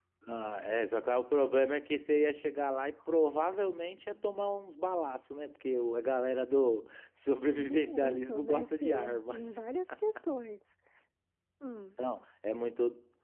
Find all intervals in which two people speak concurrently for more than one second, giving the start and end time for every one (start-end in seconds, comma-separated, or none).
7.6-9.4